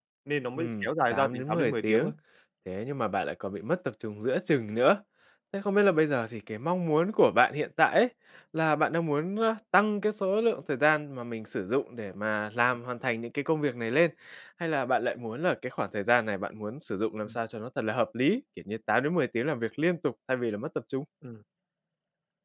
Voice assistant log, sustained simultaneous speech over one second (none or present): present